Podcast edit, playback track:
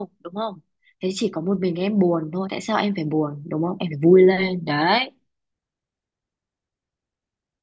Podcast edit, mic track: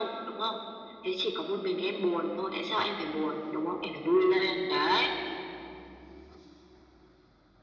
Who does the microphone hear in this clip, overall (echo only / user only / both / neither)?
echo only